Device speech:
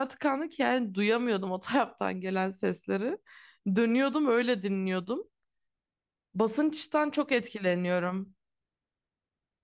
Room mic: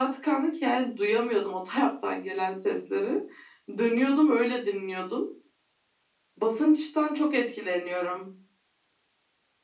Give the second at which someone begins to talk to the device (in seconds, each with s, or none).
none